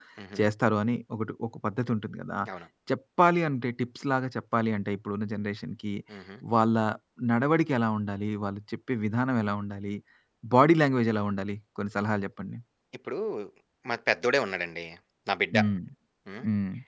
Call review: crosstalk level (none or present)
none